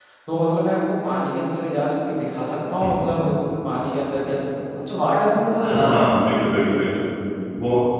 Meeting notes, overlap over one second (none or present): none